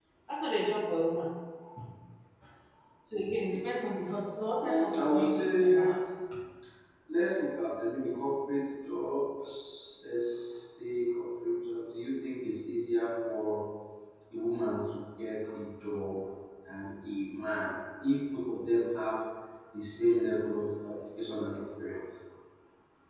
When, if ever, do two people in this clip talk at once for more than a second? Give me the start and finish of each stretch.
4.6-5.9

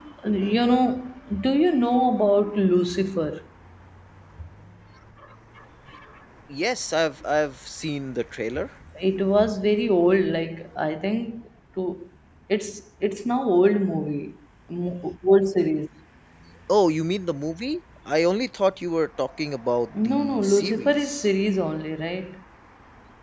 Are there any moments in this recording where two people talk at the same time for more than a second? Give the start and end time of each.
20.0-21.3

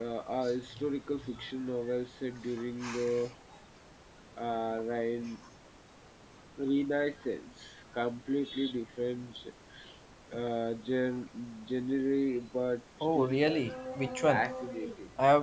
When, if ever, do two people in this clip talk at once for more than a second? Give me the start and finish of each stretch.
13.2-14.4

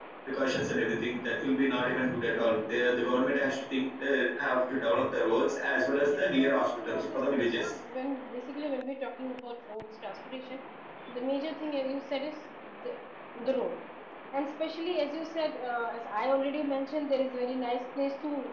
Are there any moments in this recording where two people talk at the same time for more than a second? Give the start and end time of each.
5.9-7.7

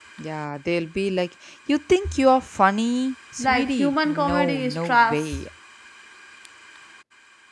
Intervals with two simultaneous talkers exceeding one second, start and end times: 3.4-5.3

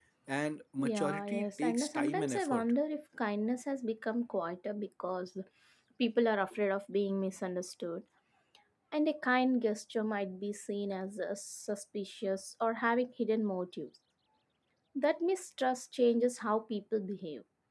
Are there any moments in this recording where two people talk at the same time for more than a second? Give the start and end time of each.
0.8-2.7

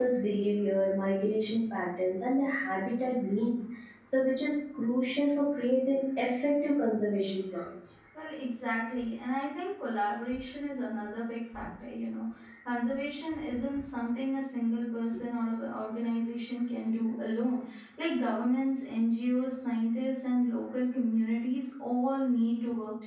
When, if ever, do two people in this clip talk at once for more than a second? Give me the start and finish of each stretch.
none

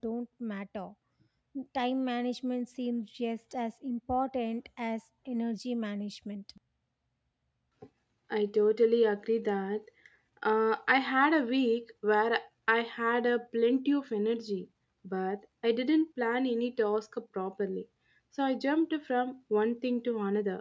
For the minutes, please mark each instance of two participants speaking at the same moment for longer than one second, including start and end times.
none

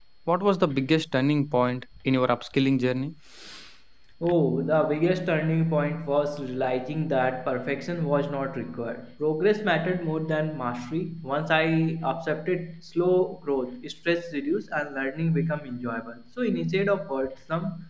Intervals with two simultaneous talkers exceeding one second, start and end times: none

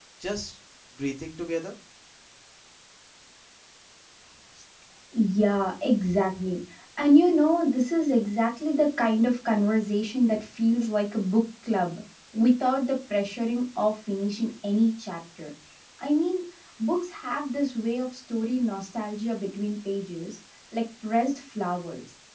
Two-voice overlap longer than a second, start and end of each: none

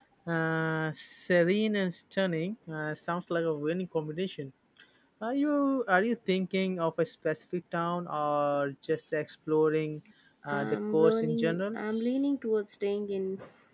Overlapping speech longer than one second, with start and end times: 10.5-11.8

